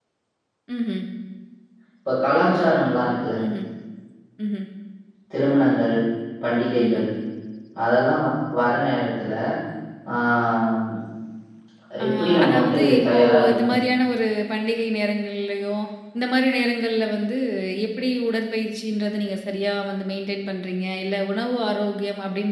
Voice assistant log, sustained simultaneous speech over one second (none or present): present